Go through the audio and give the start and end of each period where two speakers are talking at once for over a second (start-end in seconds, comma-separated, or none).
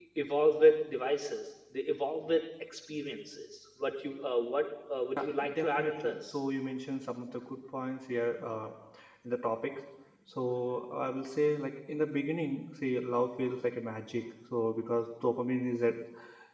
5.2-6.4